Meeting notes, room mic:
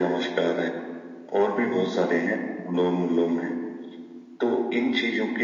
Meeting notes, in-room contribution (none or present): present